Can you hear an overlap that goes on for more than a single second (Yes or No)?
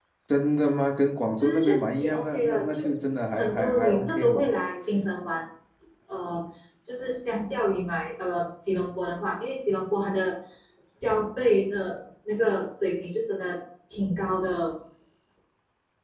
Yes